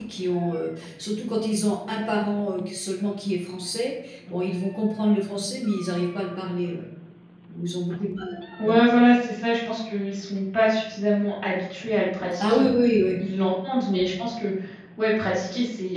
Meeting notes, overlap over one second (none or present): none